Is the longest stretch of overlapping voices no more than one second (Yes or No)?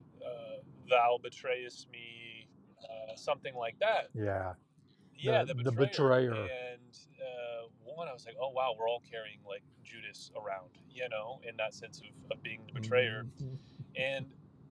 No